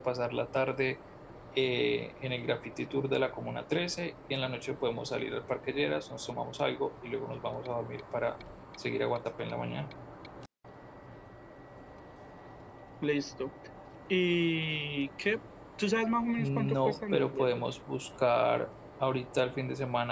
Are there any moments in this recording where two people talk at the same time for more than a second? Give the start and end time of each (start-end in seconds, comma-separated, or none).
16.4-17.6